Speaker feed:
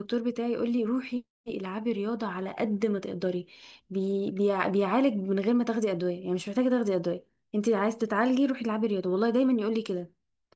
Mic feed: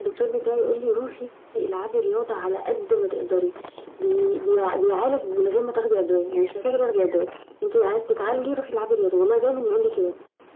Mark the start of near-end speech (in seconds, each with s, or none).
none